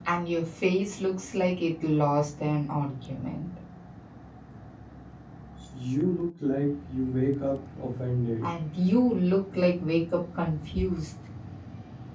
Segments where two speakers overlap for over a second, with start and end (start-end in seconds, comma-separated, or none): none